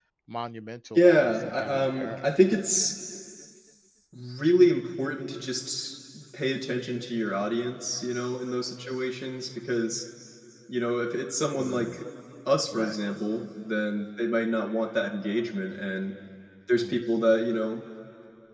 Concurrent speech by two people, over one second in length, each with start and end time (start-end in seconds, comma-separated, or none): 1.0-2.2